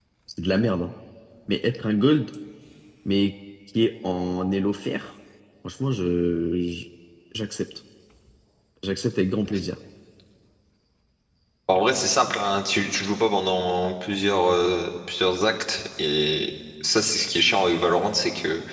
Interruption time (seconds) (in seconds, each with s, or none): none